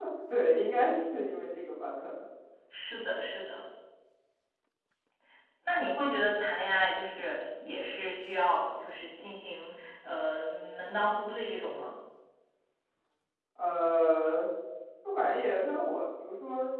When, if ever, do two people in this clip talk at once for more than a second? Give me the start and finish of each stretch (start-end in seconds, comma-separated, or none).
none